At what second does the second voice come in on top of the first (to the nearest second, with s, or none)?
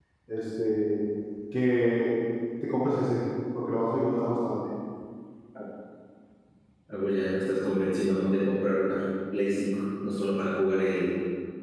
none